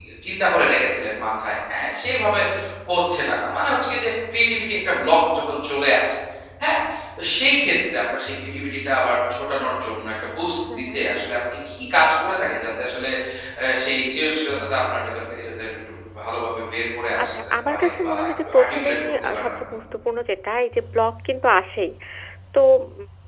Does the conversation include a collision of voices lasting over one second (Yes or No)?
Yes